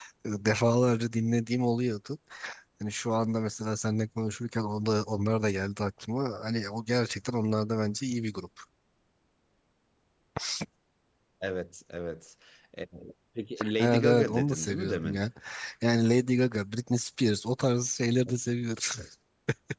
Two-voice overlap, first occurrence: 14 s

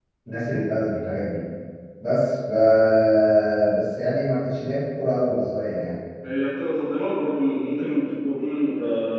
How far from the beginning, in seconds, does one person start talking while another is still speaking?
none

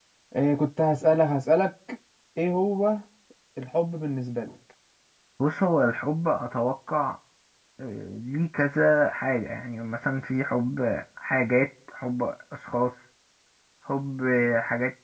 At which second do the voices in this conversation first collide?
none

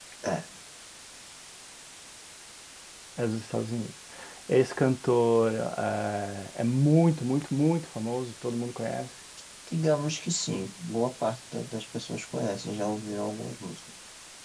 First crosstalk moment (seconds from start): none

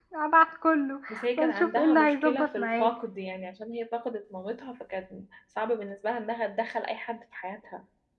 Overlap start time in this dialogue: 1 s

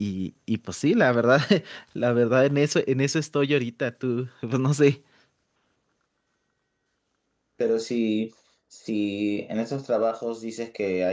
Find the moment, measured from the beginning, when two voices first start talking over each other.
none

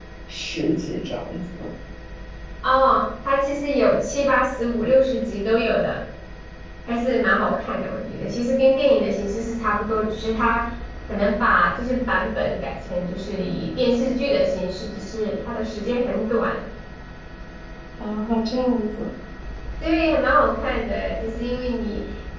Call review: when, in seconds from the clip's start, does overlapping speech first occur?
none

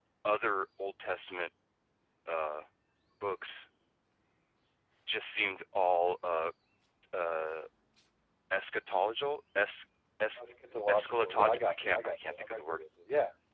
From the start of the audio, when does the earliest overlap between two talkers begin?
11 s

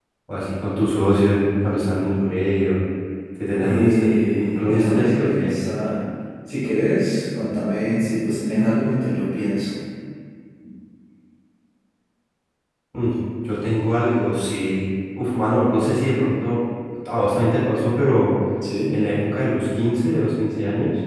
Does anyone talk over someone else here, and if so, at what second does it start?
4 s

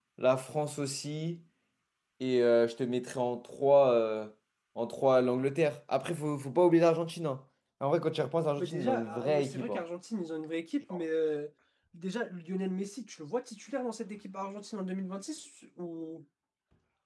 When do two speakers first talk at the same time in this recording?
9 s

